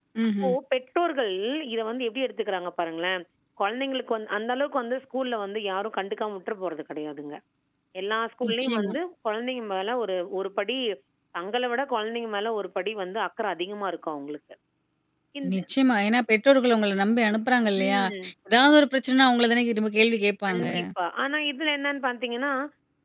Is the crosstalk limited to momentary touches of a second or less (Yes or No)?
Yes